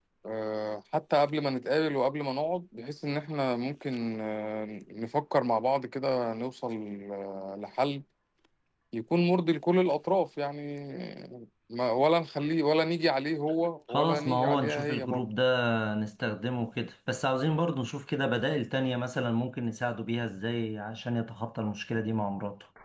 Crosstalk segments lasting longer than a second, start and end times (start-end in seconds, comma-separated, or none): 13.9-15.3